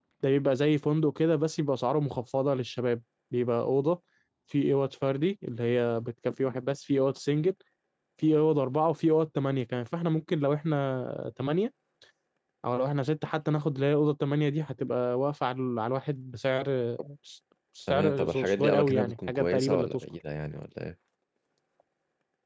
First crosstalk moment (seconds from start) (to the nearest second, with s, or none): 18 s